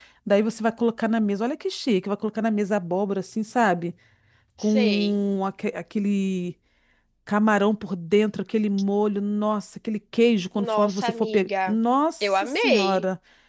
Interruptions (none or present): present